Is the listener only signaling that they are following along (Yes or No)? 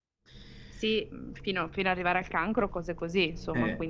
No